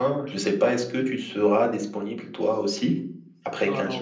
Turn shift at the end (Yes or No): Yes